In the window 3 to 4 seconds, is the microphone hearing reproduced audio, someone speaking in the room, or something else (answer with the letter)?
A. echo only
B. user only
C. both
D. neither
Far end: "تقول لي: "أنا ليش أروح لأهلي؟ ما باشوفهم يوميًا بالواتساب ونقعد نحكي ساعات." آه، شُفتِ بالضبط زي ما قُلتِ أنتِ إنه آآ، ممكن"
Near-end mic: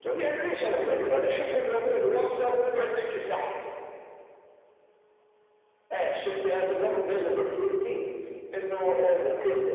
A